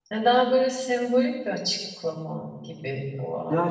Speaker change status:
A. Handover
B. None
A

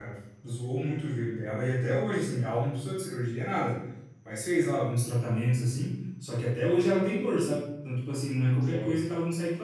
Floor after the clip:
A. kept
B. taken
A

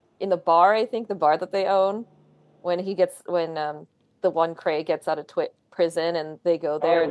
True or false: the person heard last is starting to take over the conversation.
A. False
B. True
B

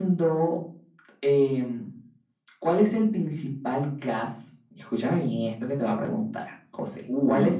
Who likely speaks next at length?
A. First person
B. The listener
A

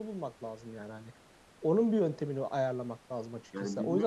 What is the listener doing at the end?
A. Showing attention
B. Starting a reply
A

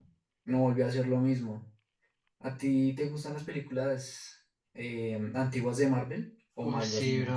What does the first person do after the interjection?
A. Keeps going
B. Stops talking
B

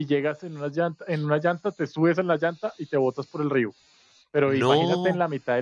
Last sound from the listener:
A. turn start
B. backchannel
B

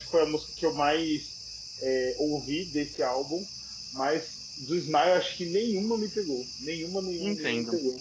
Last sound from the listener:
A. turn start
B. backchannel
A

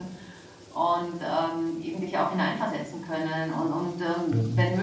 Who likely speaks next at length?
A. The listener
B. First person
B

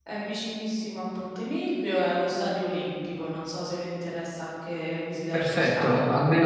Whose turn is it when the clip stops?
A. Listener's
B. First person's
A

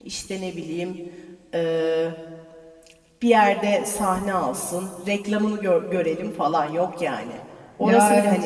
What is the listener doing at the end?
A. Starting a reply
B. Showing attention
B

